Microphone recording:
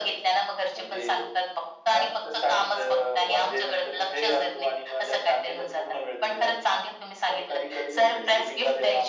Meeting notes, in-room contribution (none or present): none